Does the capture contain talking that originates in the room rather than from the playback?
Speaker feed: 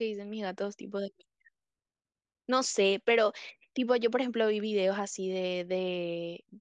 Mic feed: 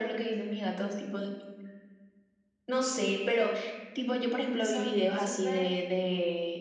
Yes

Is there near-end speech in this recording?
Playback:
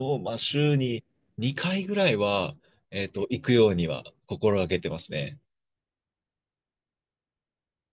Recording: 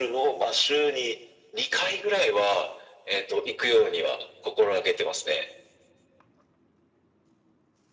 No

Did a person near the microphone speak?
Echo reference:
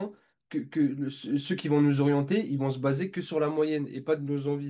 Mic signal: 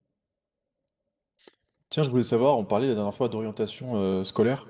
Yes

